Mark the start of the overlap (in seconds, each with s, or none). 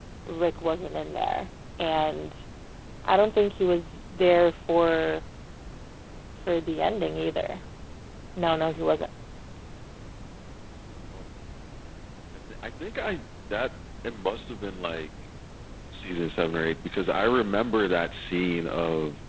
none